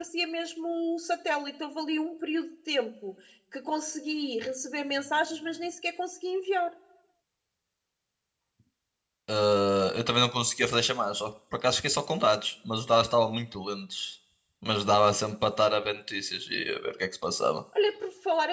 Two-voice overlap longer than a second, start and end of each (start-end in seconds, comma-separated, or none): none